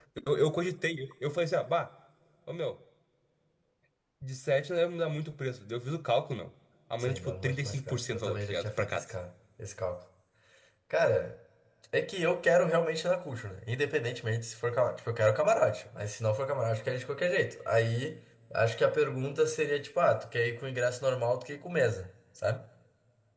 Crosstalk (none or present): present